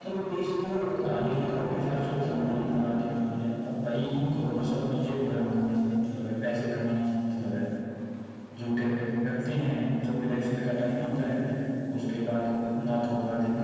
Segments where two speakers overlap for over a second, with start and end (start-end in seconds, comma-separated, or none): 1.0-2.8